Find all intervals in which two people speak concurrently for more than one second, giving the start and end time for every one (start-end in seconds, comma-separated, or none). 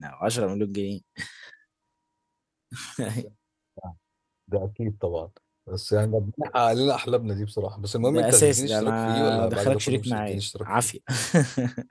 8.0-10.9